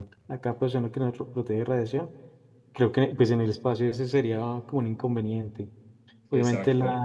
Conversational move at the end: listening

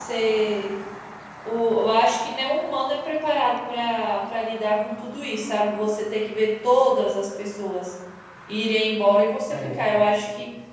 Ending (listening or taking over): listening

